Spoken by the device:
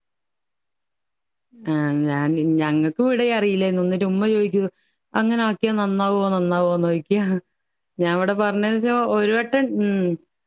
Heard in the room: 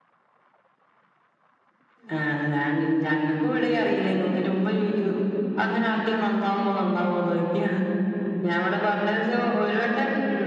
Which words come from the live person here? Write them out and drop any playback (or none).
none